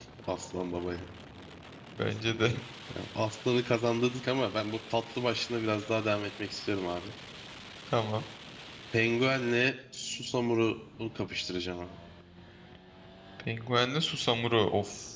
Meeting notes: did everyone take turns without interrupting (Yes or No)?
Yes